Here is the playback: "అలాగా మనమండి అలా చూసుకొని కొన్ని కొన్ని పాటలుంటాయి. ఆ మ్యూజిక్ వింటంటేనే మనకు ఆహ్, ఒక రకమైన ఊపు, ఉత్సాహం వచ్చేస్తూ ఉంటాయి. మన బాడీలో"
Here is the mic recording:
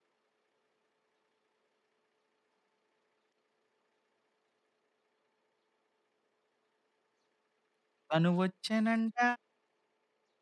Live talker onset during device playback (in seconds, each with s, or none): 8.1 s